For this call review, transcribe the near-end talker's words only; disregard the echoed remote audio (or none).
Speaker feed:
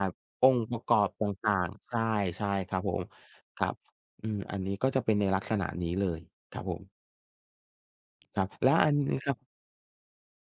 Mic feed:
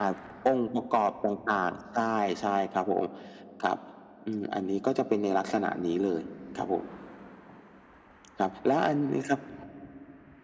none